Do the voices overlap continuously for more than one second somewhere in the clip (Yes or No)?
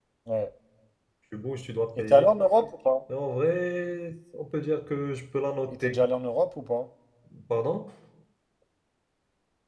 No